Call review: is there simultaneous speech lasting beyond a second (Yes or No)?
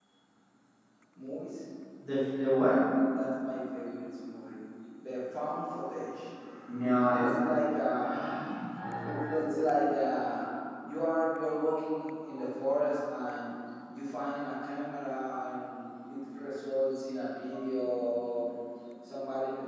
No